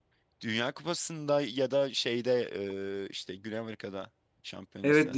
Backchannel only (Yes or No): No